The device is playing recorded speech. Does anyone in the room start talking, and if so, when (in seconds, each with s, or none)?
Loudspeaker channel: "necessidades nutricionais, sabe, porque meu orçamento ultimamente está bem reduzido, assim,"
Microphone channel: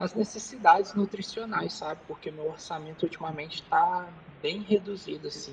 none